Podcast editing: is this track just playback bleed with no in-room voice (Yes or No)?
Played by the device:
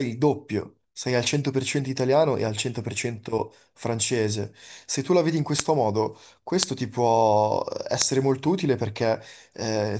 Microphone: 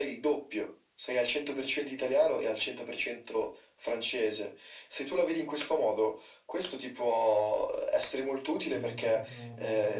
No